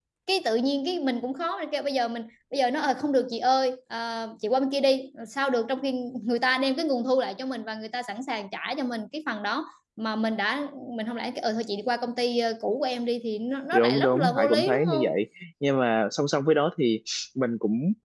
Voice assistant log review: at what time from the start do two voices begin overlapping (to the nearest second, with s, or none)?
14 s